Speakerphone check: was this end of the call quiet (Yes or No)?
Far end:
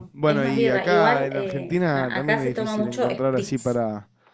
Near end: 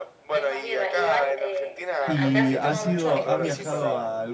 No